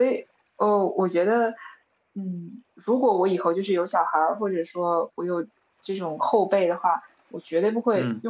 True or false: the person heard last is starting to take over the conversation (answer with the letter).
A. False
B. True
A